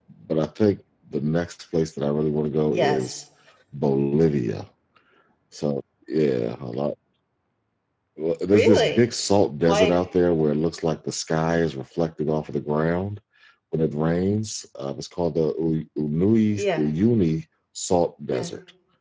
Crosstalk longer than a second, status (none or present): none